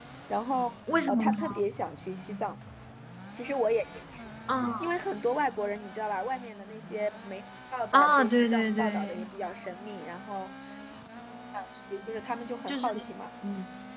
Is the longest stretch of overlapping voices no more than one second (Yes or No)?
No